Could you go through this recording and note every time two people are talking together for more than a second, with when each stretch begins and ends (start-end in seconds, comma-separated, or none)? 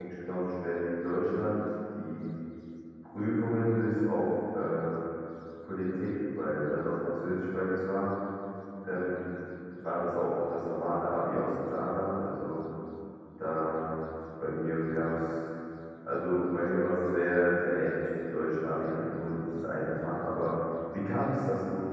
none